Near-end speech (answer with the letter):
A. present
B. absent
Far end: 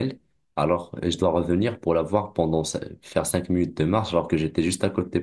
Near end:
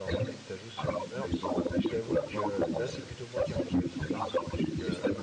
A